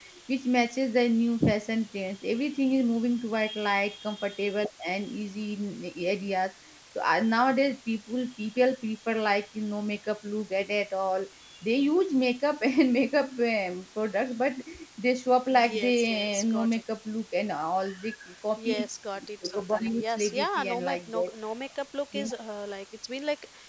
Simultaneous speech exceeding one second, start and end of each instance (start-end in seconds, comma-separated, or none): 15.5-16.8, 19.4-21.3